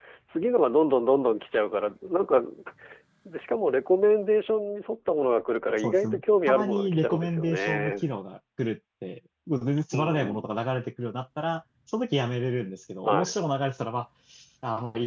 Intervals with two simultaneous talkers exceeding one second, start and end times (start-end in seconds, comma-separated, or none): 5.8-8.0